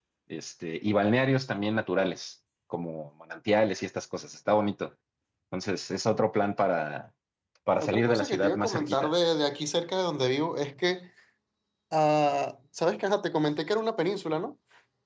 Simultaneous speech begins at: 7.8 s

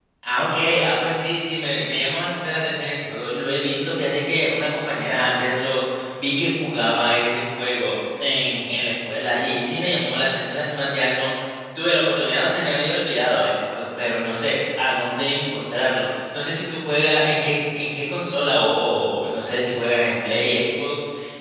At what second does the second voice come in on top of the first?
none

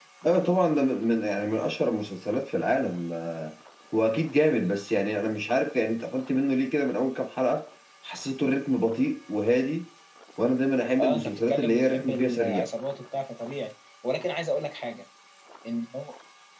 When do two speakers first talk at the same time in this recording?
11.0 s

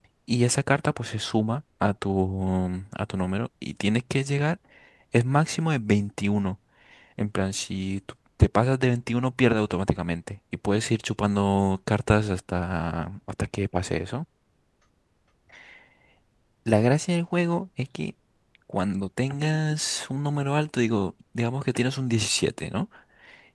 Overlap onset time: none

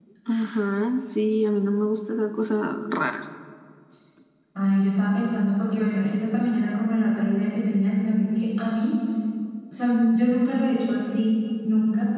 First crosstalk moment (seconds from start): none

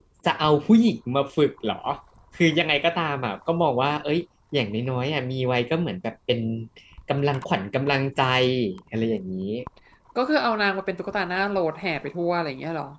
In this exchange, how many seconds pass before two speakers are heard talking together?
none

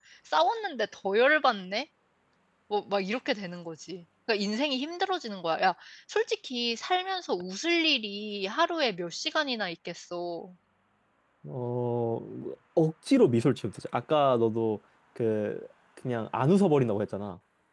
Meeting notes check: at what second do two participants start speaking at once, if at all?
none

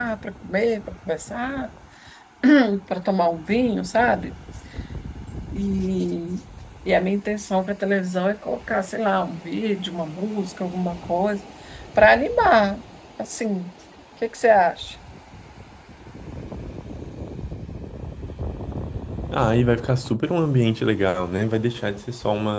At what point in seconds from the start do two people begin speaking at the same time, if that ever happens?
none

